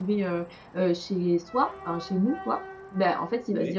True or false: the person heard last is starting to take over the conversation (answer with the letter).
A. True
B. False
B